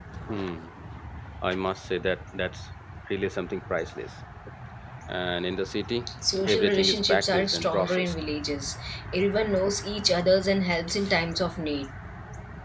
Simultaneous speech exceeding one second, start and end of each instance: 6.5-8.1

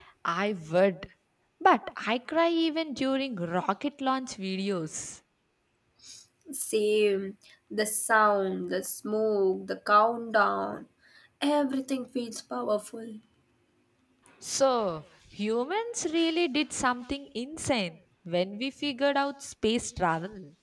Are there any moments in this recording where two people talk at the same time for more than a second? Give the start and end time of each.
none

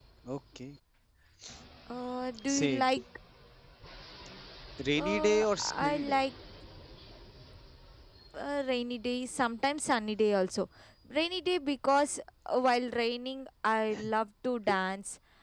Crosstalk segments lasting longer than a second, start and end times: 5.0-6.2

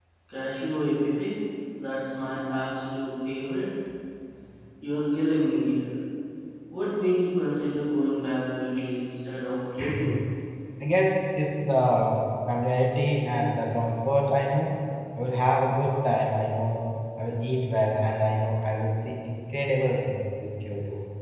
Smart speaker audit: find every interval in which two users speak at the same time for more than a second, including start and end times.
none

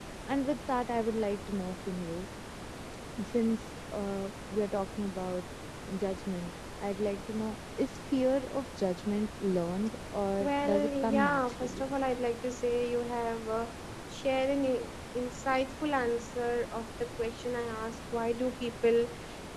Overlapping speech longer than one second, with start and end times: 10.4-11.9

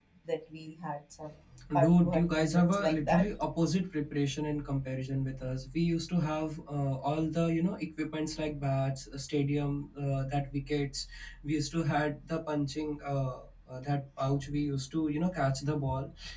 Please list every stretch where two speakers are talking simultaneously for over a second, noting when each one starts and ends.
1.7-3.3

